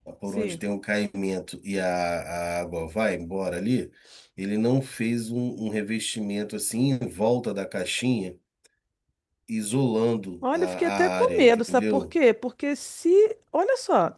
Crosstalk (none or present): present